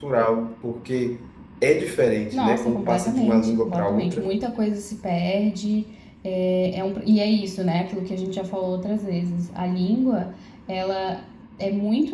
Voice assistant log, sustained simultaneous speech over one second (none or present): present